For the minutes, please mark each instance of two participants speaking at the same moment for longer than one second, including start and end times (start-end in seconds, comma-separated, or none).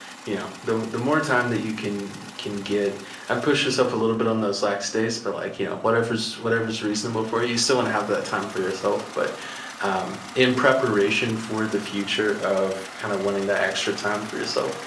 none